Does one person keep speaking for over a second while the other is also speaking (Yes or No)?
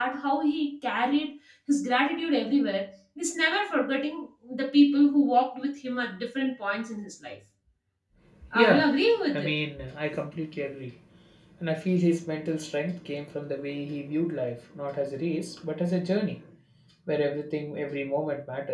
No